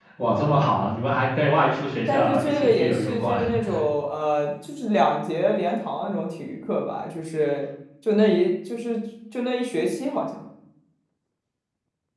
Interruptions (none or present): present